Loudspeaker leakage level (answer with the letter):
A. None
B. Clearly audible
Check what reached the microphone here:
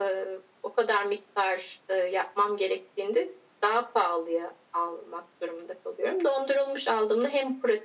B